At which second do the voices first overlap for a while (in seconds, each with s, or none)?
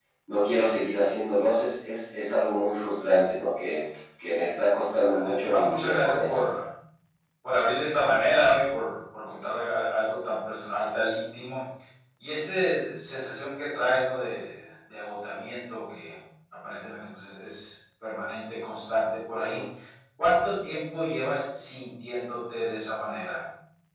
5.1 s